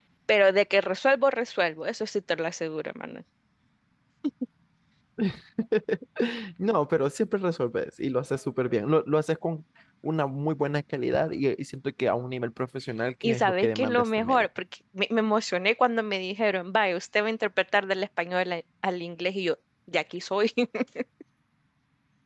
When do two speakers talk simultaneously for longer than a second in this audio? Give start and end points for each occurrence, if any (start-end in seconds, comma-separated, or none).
13.2-14.4